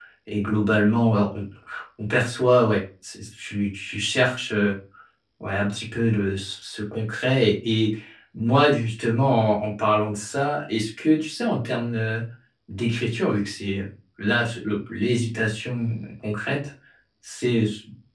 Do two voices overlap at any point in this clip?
No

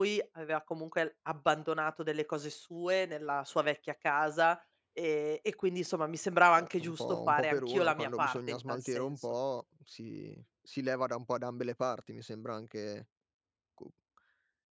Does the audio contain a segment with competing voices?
Yes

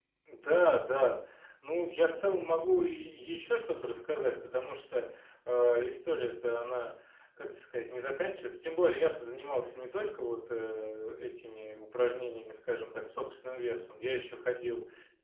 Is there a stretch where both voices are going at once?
No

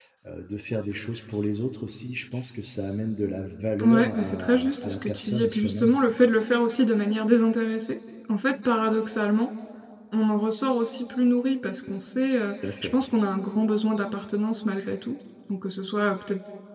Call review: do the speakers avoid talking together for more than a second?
No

